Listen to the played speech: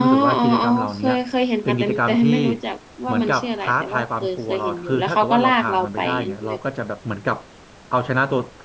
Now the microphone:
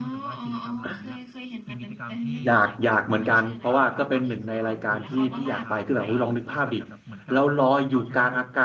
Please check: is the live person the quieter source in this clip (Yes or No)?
No